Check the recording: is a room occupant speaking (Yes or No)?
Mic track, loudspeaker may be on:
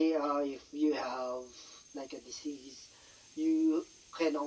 No